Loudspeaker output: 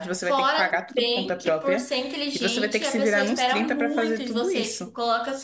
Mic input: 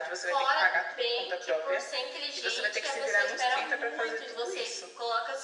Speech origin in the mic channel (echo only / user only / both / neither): echo only